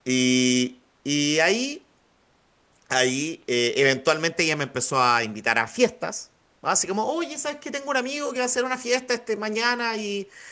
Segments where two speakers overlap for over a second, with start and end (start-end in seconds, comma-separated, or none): none